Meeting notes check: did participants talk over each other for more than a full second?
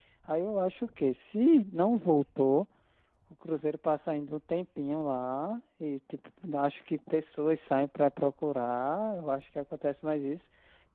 No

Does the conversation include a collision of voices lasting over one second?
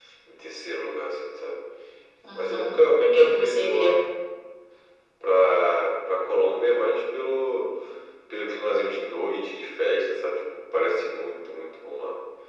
Yes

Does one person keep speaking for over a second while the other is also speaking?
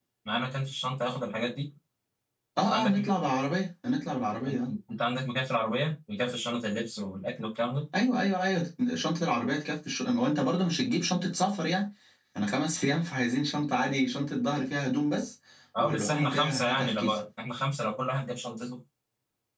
Yes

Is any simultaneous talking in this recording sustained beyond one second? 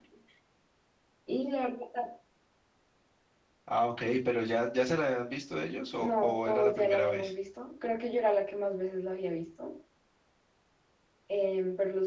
Yes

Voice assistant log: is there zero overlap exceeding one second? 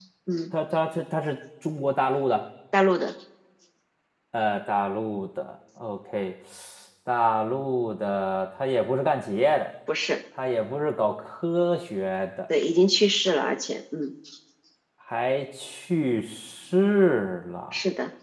Yes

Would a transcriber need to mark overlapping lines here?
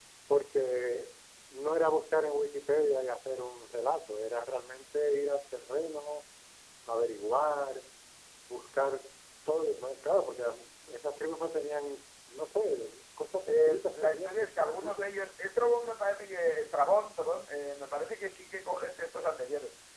Yes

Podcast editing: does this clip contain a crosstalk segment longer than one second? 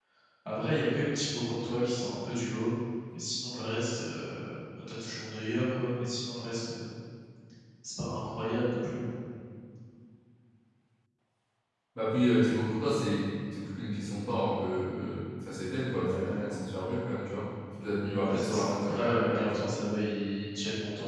Yes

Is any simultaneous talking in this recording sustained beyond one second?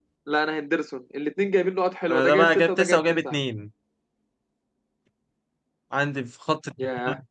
Yes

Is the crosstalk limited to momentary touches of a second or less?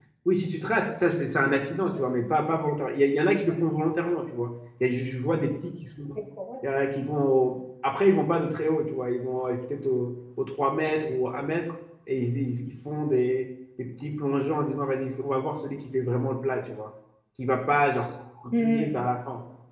Yes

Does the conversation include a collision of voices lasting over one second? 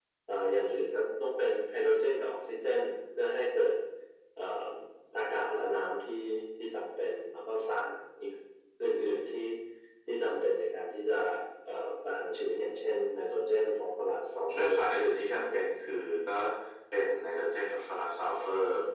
Yes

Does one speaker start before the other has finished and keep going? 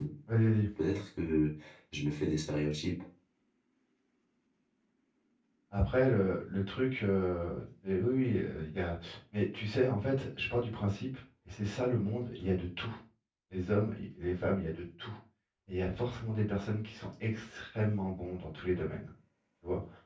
No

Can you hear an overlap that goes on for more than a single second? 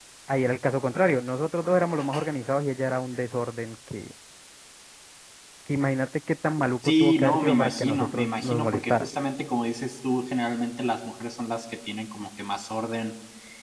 Yes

